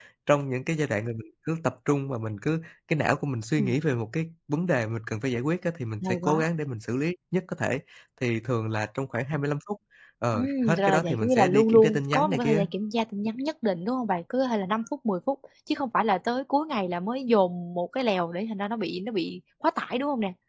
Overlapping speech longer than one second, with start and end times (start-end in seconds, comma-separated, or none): 10.3-12.6